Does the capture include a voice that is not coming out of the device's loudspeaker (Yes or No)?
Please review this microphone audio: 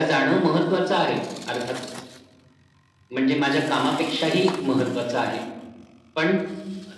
No